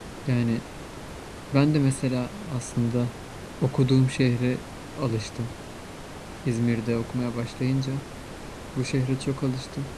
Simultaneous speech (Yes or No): No